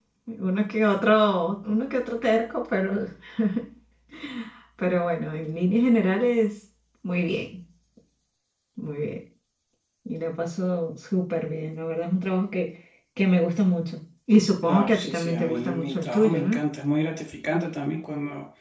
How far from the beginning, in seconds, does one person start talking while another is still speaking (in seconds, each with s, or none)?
14.6 s